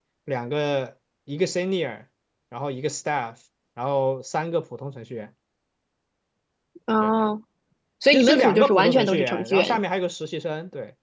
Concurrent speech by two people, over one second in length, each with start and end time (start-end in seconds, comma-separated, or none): 8.1-9.8